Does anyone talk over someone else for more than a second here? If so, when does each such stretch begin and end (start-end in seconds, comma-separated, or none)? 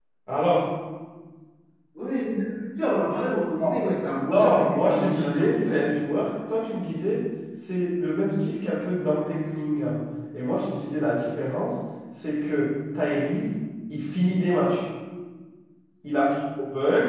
4.3-5.9